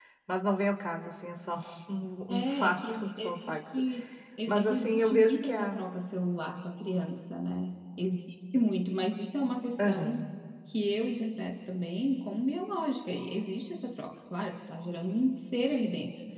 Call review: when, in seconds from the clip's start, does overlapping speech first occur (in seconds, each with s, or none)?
2.3 s